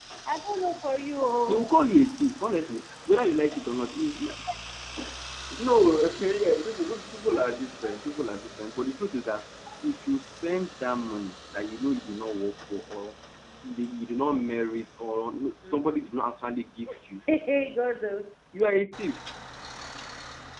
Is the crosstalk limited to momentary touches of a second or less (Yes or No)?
Yes